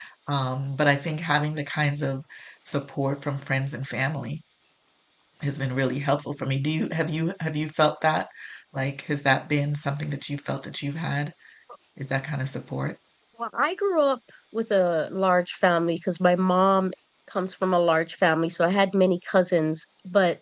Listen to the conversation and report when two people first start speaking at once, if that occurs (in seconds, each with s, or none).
none